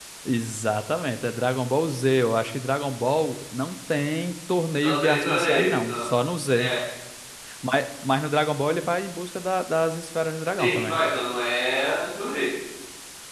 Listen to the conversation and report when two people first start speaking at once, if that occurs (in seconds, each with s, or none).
4.8 s